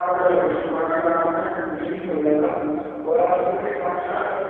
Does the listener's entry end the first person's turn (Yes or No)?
No